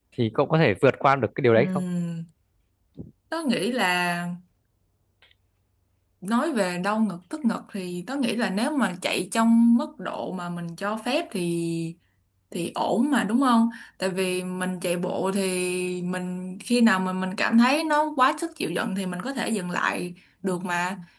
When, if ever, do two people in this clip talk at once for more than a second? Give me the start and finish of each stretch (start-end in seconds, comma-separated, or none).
none